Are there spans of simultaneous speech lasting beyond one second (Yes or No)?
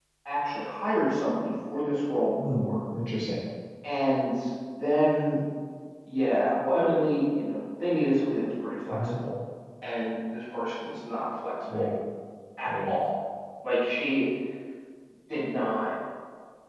No